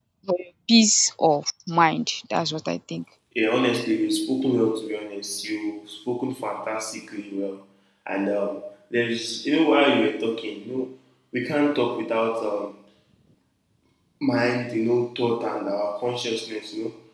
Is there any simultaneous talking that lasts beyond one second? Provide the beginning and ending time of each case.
none

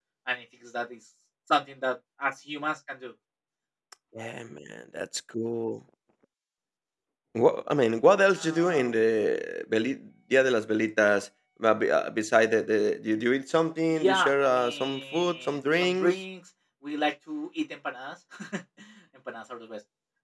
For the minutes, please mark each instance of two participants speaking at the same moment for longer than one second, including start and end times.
13.9-16.1

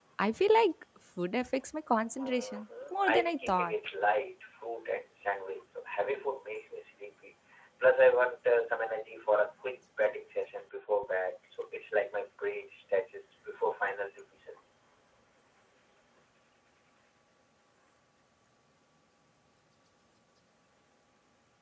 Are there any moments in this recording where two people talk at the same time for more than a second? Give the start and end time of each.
2.1-3.7

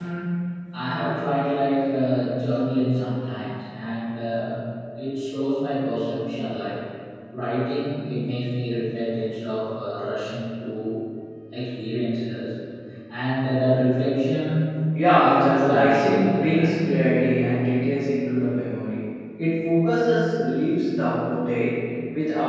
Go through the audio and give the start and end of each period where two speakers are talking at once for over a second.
15.2-16.7

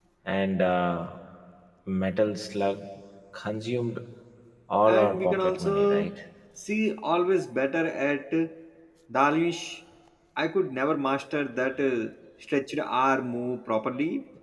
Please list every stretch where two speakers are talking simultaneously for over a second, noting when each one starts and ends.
4.8-6.1

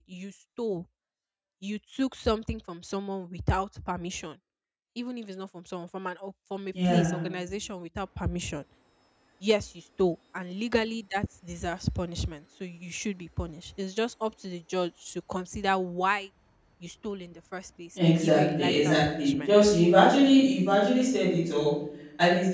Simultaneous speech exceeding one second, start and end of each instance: 18.0-19.5

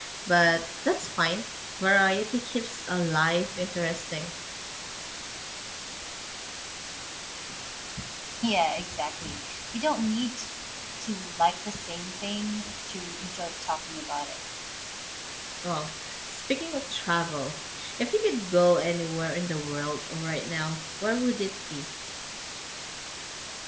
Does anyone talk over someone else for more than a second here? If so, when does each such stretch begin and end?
none

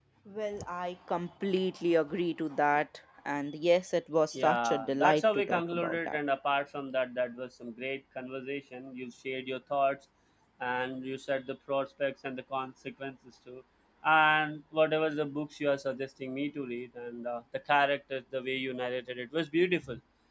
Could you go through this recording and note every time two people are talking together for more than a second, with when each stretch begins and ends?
4.3-6.2

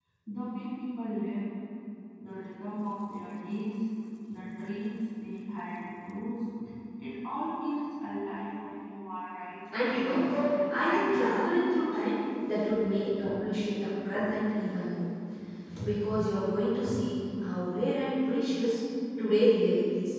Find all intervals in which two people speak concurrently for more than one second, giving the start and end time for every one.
9.8-11.2

